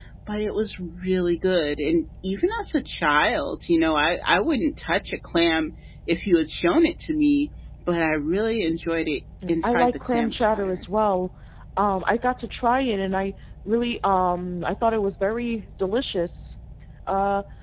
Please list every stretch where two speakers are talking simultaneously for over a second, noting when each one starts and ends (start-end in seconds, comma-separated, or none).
9.6-10.8